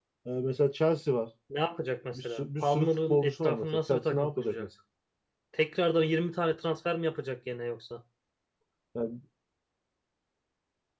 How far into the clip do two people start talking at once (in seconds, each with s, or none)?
2.1 s